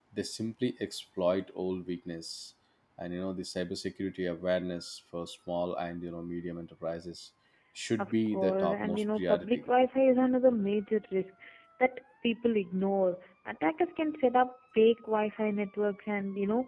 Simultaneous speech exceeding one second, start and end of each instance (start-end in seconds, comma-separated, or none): 8.0-9.6